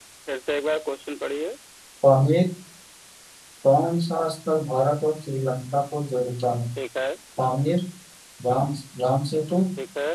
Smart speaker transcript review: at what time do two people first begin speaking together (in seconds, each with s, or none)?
none